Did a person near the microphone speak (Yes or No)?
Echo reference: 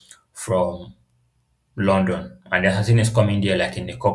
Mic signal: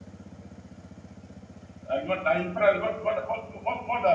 Yes